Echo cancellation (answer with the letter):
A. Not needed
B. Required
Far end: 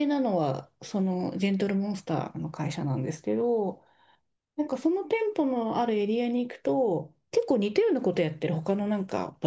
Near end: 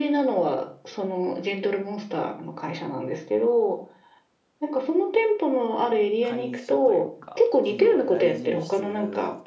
B